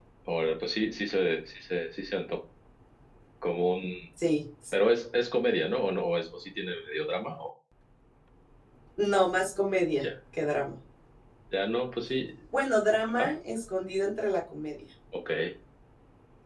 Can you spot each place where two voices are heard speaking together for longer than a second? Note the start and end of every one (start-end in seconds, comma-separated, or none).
none